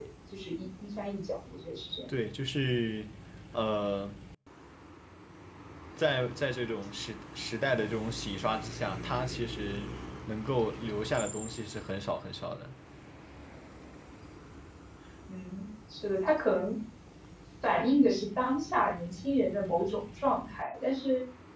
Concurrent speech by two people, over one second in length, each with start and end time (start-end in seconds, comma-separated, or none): none